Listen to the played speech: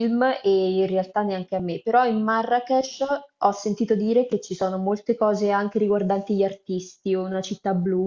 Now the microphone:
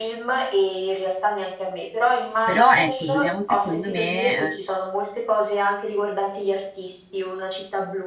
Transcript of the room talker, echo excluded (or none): però ecco, dobbiamo secondo me